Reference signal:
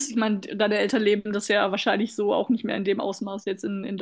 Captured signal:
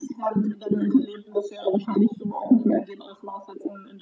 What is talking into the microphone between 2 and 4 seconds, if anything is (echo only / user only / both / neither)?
echo only